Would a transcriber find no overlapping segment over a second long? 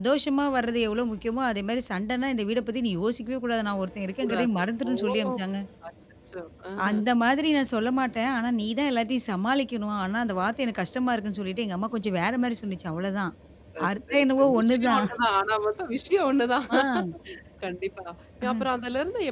No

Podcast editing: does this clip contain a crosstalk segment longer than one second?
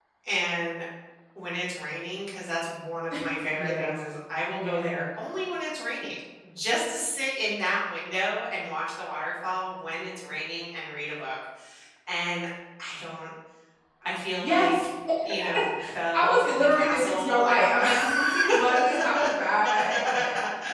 Yes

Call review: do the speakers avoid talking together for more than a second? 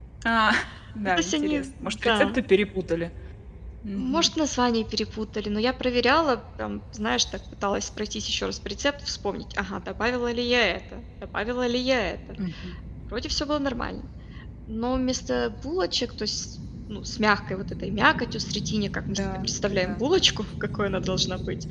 No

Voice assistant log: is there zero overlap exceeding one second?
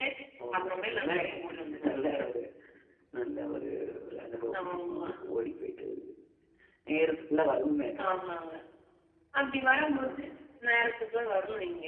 No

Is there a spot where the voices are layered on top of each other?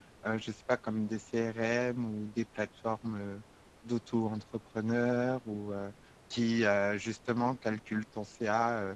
No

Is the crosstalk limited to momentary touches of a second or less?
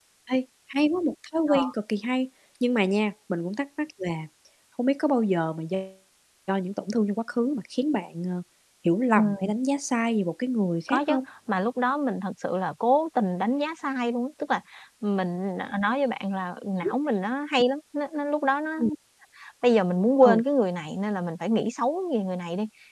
Yes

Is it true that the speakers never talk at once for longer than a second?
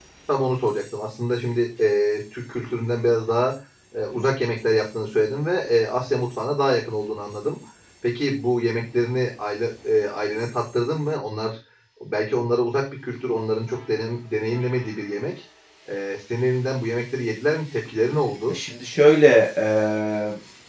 Yes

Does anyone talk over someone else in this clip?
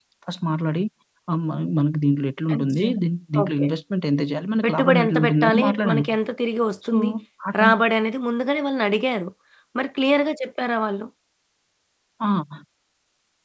Yes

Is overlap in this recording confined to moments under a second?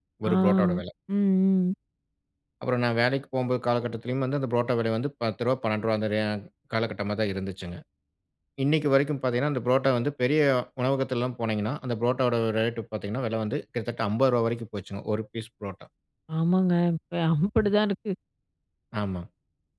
Yes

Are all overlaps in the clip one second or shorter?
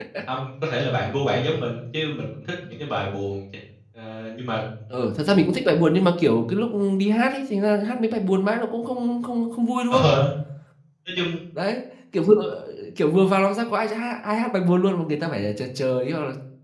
Yes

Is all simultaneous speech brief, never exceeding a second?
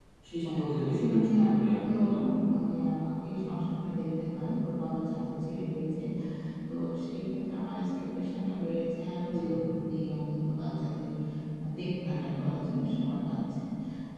No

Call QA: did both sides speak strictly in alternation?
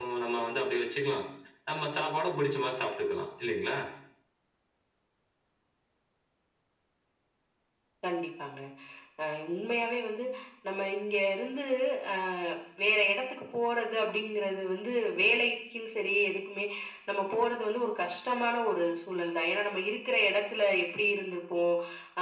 Yes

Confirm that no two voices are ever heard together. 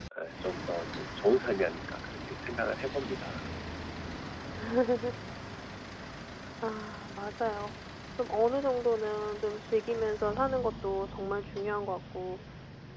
Yes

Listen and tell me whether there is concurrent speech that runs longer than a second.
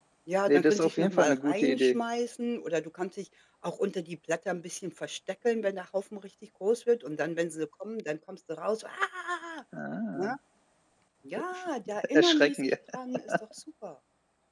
Yes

